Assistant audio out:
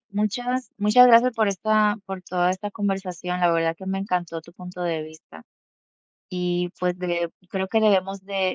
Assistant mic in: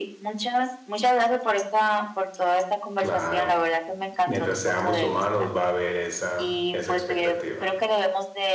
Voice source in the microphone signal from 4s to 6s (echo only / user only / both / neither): both